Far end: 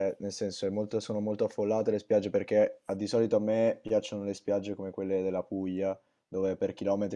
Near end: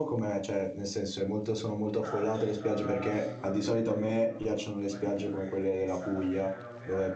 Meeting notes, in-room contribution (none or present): present